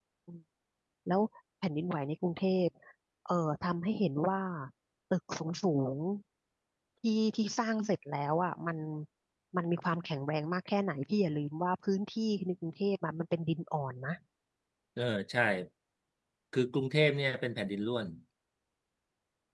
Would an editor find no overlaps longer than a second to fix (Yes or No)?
Yes